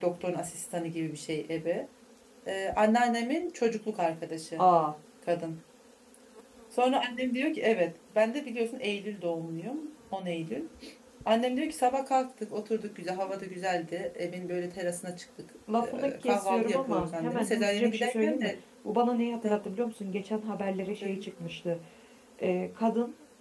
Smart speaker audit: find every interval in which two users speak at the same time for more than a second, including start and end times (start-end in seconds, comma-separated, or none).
15.8-18.5